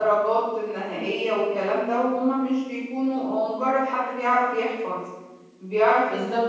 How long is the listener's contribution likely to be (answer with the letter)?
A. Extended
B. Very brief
A